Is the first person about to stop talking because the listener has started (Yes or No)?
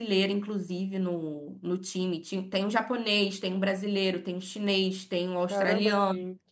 Yes